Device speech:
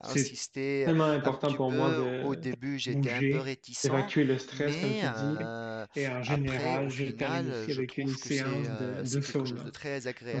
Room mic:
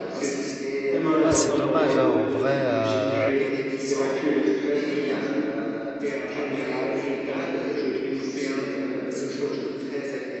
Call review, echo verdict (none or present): present